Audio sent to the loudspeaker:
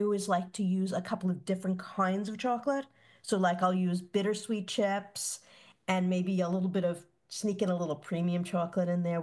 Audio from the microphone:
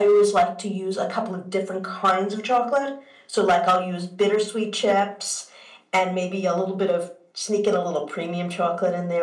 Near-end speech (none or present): none